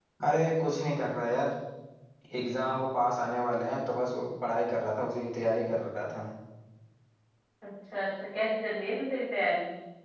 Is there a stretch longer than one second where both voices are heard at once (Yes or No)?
No